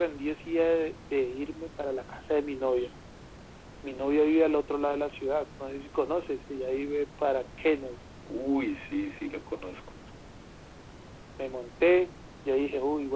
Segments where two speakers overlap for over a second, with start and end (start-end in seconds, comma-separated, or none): none